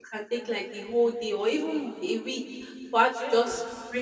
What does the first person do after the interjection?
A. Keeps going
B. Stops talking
A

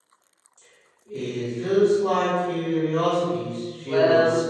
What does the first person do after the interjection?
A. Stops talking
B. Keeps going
A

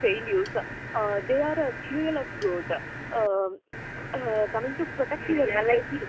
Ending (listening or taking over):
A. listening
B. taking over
B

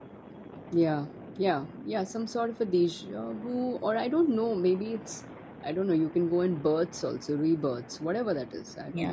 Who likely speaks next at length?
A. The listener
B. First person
A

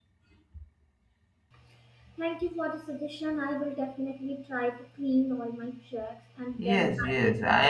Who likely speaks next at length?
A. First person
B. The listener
B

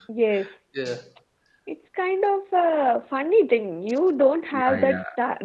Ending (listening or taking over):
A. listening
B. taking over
A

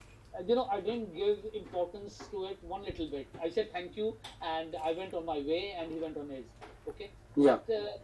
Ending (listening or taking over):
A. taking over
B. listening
B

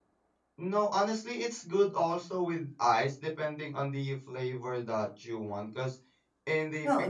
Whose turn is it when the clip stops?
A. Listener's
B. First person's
A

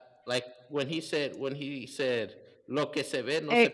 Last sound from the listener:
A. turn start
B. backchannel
A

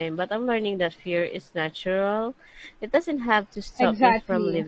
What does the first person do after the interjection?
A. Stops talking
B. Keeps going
A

